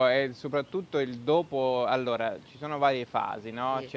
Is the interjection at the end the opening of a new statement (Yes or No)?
No